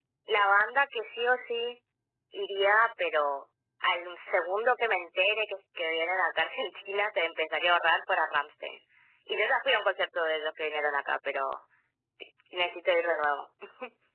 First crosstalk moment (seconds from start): none

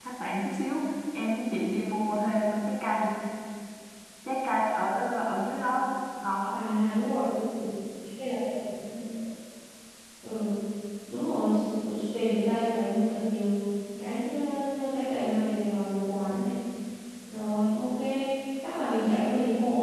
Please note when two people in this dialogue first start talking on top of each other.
none

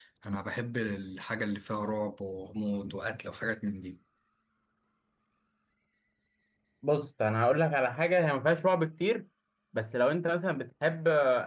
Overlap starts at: none

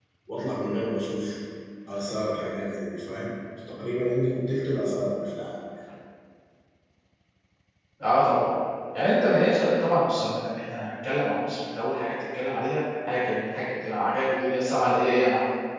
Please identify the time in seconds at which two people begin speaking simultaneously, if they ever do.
none

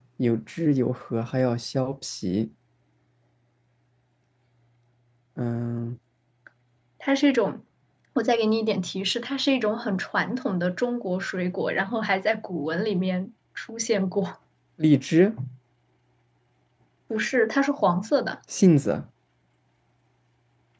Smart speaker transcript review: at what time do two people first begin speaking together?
none

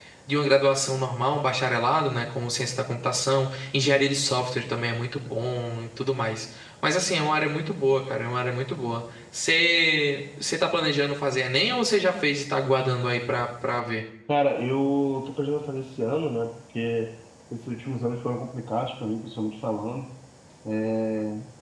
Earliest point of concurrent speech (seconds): none

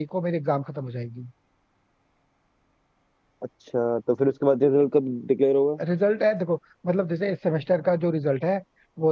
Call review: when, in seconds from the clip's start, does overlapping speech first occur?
none

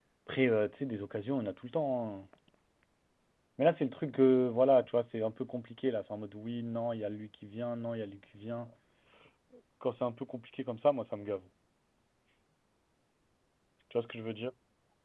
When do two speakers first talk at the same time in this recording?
none

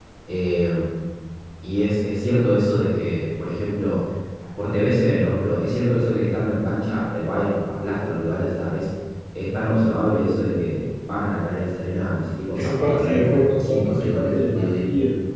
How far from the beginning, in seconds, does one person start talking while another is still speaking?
12.6 s

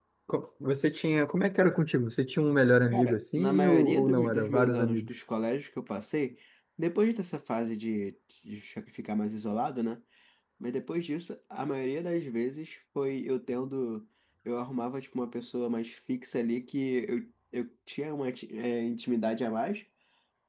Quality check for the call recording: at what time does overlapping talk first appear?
2.9 s

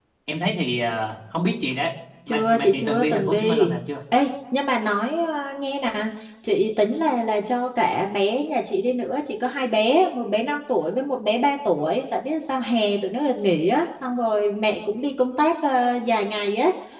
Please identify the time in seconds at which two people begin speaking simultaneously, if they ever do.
2.3 s

